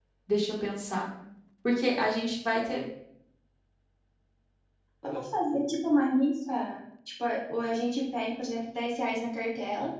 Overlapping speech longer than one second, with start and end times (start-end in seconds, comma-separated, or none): none